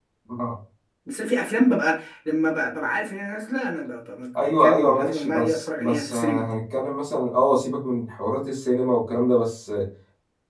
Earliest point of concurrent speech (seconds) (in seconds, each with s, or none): 4.3 s